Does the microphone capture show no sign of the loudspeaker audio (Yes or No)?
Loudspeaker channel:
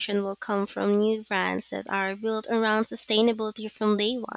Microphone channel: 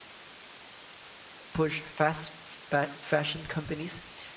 Yes